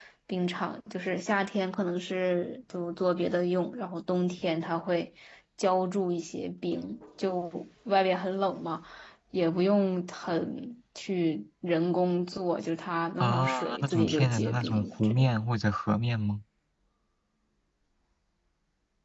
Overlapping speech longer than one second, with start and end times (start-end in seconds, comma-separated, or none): 13.2-15.3